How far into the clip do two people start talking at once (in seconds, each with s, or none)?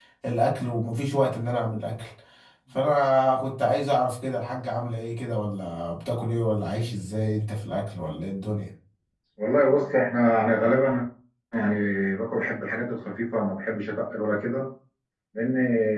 none